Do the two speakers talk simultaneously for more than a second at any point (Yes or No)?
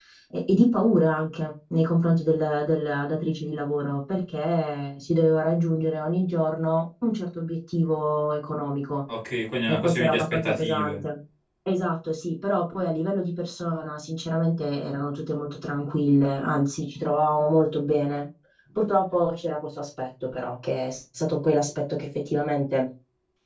Yes